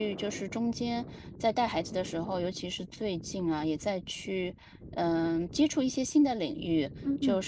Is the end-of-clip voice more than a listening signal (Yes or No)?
No